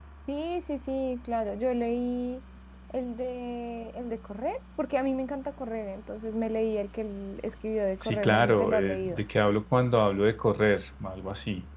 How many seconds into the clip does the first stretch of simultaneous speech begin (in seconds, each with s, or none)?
8.0 s